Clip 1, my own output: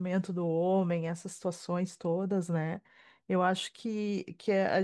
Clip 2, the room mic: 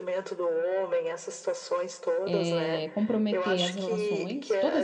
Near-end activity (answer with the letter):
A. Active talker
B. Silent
A